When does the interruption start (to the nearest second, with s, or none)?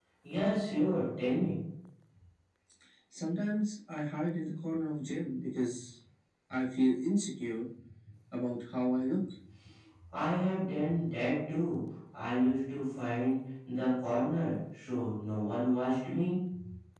none